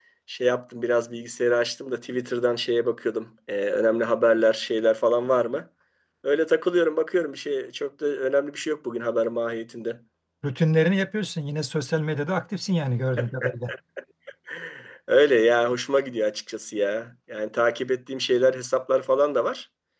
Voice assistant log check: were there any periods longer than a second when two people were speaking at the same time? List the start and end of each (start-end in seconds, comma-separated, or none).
none